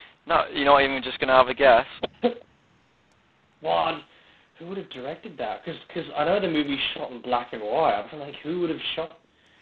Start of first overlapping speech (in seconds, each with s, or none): none